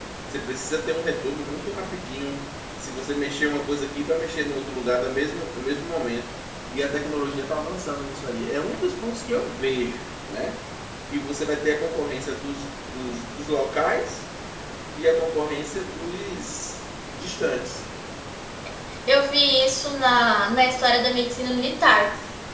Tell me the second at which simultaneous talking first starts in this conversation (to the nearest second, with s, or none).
none